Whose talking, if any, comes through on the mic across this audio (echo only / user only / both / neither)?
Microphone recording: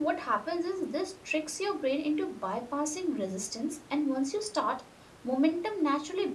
user only